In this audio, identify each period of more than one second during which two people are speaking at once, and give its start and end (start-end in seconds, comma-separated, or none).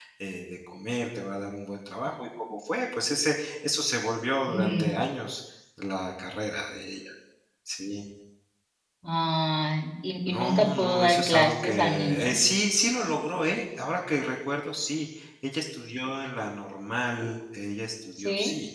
10.3-12.4